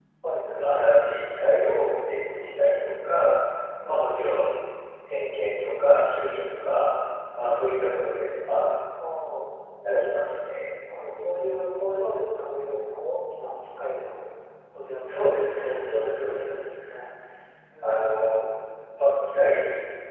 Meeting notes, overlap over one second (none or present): present